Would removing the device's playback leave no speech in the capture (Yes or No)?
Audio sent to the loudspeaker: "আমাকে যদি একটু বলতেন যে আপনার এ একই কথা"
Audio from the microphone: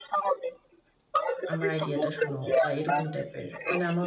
No